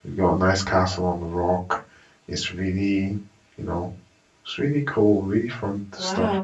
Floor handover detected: Yes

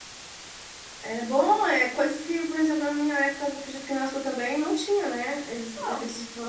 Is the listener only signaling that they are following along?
Yes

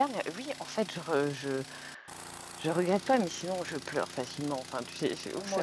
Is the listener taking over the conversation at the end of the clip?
No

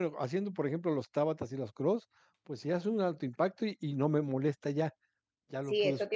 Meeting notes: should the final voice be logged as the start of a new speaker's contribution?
Yes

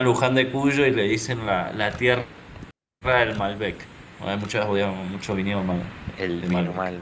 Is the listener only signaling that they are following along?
No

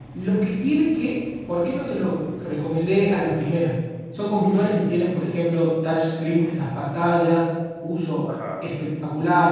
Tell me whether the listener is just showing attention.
Yes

